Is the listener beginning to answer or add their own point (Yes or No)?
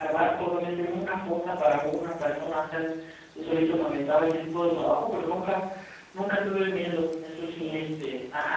No